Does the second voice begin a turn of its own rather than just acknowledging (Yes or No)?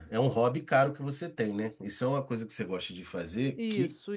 Yes